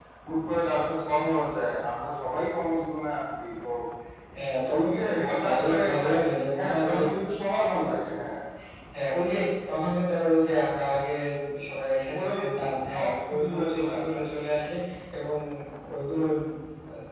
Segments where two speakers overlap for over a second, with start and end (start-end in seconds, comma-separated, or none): 4.8-6.1, 12.9-14.2